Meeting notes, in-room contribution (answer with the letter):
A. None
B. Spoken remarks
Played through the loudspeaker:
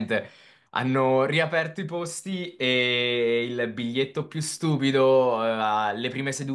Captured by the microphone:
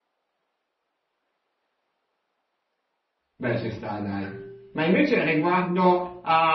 B